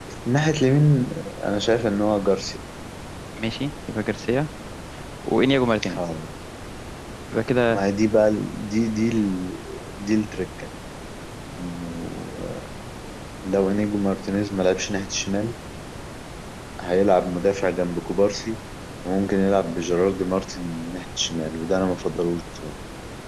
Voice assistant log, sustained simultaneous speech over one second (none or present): none